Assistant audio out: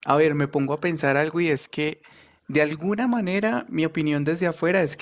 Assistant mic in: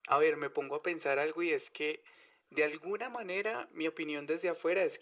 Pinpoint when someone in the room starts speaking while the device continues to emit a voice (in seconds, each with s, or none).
none